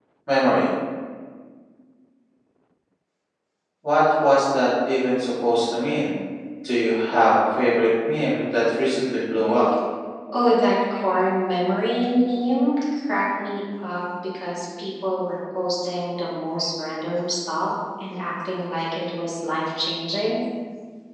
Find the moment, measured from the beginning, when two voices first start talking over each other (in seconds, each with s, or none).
none